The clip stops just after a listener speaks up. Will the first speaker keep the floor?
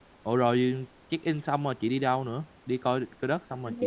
No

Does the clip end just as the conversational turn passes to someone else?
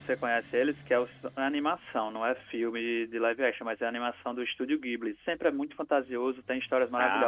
No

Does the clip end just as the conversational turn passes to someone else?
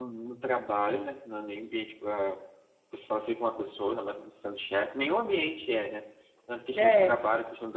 No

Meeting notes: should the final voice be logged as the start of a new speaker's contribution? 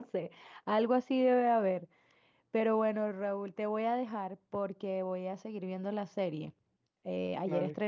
No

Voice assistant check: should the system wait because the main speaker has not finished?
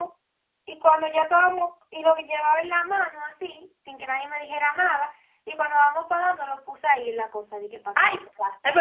No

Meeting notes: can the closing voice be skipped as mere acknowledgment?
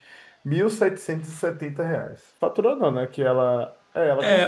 No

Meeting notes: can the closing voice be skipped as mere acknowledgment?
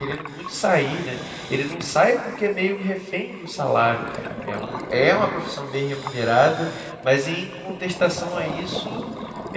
Yes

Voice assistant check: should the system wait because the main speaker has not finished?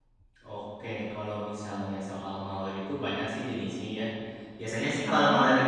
Yes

